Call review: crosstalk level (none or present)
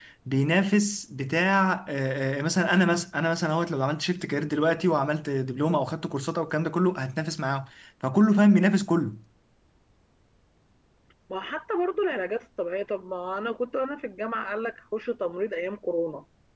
none